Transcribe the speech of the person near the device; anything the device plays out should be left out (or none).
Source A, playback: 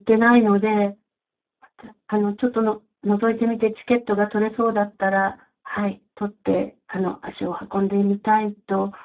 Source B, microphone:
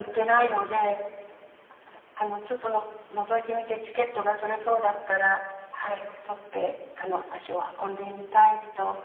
none